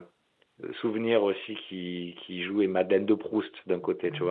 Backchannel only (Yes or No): No